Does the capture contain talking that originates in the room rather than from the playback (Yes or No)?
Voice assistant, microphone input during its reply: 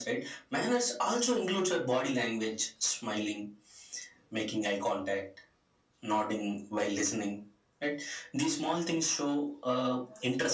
No